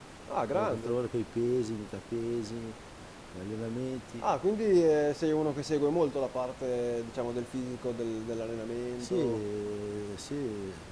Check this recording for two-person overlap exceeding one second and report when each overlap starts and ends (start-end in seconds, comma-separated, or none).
none